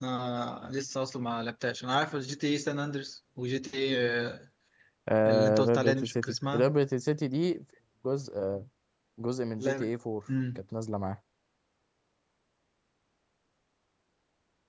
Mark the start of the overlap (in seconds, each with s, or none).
5.3 s